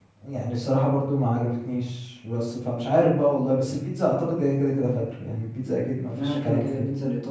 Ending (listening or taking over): taking over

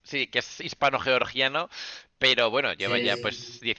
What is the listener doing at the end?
listening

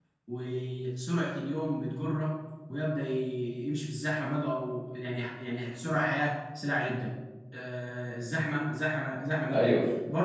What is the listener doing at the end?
listening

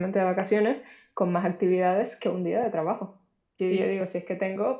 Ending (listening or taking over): listening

